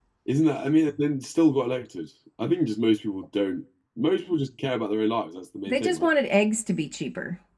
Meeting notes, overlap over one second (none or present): none